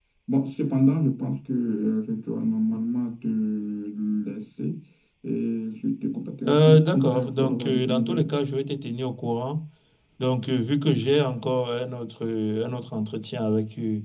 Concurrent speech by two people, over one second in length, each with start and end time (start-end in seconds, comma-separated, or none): 6.5-8.3